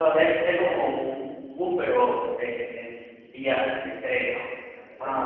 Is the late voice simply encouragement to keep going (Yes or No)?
No